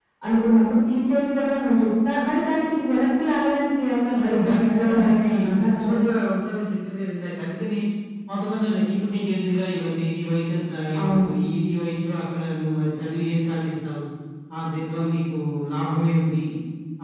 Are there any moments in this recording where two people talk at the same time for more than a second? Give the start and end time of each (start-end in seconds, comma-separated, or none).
4.2-6.0